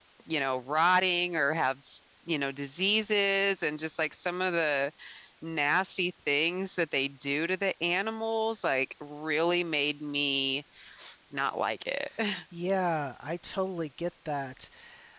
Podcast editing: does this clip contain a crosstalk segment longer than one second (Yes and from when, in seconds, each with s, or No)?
No